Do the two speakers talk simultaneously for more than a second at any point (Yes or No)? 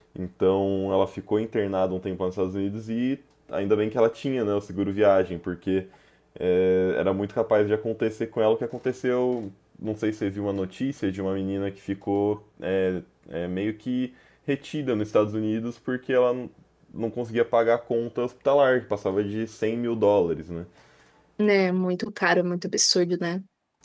No